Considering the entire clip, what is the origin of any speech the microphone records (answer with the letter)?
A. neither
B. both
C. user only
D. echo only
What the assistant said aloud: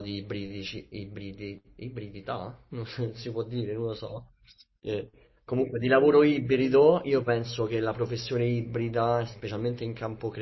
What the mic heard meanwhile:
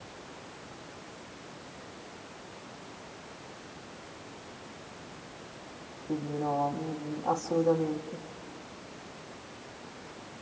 C